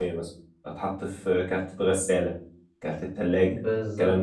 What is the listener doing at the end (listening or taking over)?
taking over